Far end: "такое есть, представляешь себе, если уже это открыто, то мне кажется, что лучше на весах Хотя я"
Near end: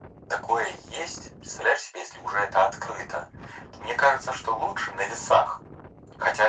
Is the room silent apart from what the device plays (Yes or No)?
Yes